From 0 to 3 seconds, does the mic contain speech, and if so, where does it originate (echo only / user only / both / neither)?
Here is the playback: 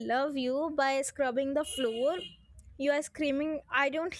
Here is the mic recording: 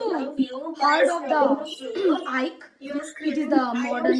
both